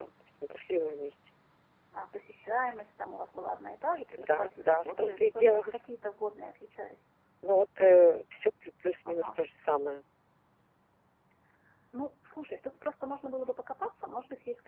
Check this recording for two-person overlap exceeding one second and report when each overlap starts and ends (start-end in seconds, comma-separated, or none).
4.2-5.7